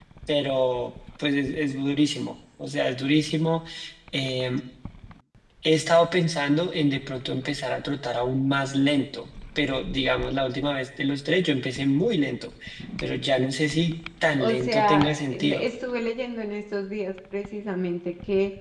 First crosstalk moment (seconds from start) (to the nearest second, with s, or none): 14 s